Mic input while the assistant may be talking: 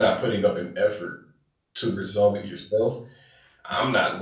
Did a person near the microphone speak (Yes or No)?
Yes